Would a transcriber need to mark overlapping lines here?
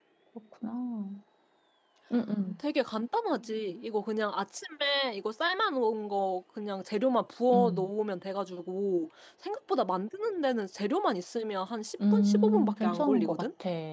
Yes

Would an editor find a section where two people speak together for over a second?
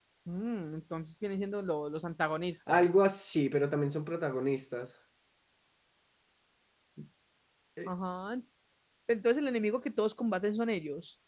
No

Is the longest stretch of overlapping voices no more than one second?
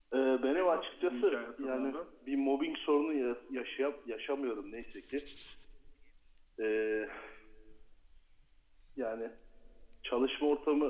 No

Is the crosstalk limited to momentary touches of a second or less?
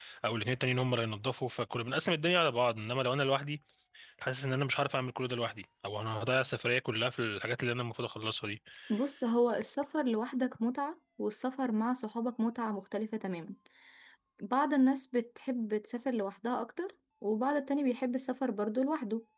Yes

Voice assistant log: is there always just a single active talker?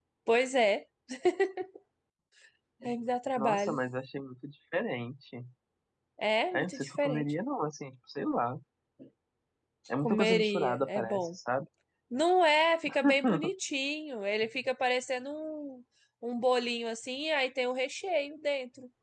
No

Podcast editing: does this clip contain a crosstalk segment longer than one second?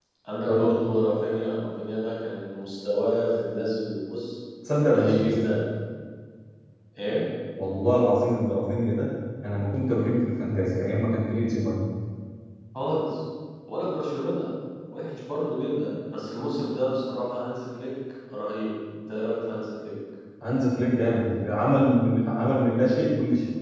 No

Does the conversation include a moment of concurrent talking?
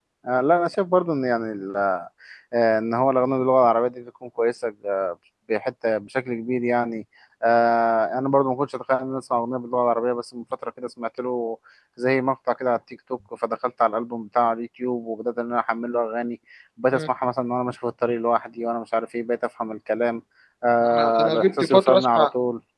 Yes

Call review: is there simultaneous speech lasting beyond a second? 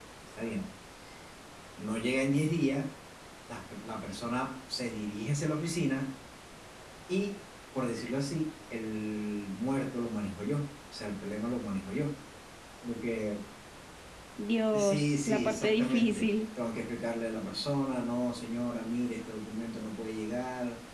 Yes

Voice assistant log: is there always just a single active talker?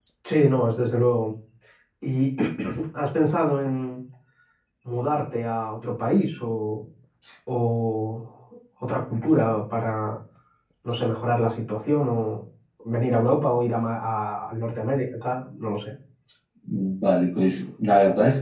Yes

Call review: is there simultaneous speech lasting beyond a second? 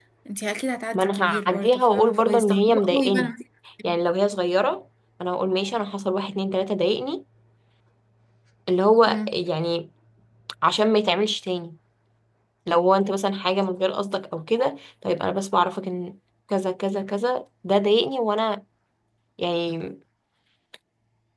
Yes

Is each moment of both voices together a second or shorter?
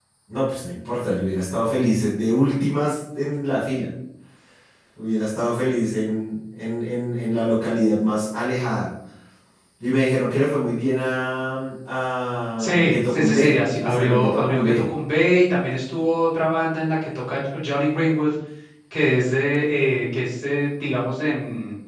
No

